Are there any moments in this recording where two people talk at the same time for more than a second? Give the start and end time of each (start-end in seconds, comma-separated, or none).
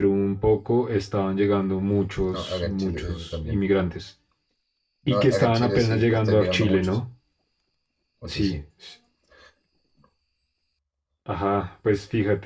2.3-3.6, 5.1-6.9